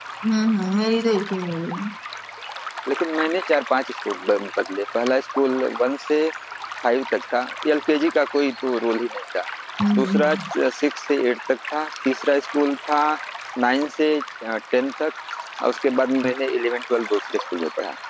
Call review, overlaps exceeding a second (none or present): none